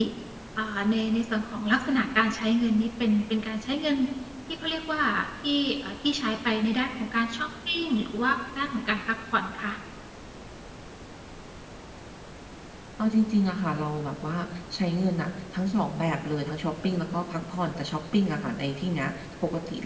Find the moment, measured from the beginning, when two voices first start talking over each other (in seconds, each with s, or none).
none